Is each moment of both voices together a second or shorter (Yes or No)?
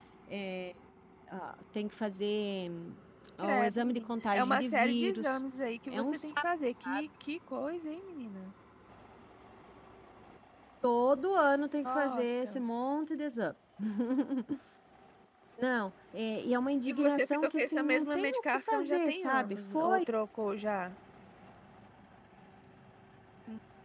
No